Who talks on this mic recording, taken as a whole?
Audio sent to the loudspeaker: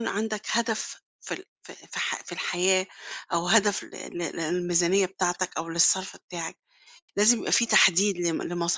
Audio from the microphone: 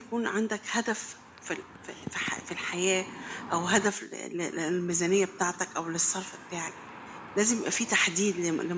echo only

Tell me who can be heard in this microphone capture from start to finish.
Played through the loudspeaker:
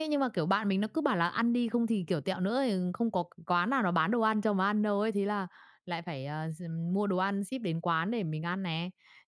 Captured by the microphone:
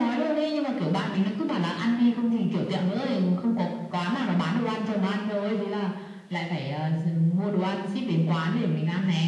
echo only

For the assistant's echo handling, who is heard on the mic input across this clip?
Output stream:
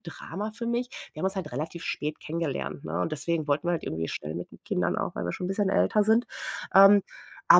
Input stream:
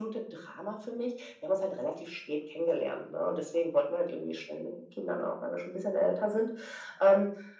echo only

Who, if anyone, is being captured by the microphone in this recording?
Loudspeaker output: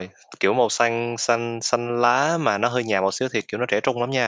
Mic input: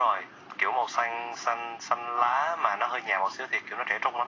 echo only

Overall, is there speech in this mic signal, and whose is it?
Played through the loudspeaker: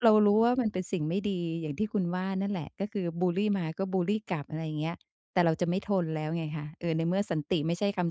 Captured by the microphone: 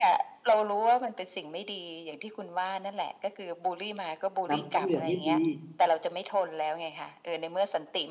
both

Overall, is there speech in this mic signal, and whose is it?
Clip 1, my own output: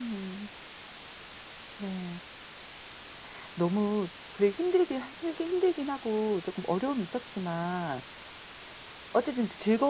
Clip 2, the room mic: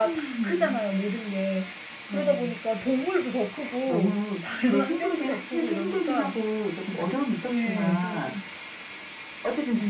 both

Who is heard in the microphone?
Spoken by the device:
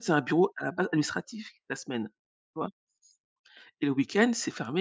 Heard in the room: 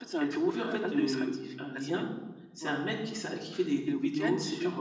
both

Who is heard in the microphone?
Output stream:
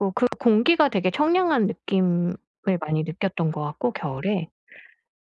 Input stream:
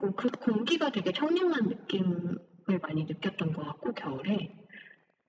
echo only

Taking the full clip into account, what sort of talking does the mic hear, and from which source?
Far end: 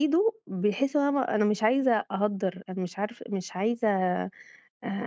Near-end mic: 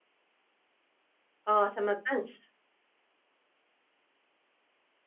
user only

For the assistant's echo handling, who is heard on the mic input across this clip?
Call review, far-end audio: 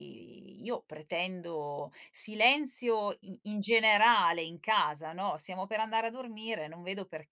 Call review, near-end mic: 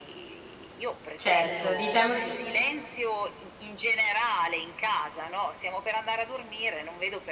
both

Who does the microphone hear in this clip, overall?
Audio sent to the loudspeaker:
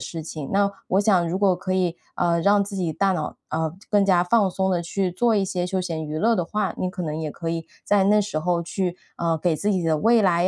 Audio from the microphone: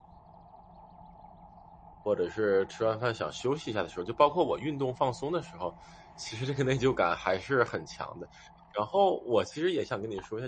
user only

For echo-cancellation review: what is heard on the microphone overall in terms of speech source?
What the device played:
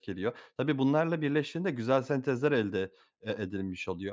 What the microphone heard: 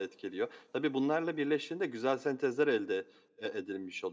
echo only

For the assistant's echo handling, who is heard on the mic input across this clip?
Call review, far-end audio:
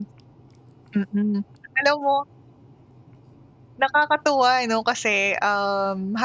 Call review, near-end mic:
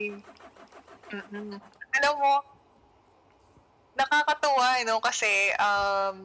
echo only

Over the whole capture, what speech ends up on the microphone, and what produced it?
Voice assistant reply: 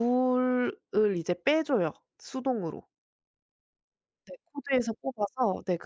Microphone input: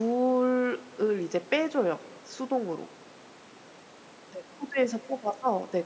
echo only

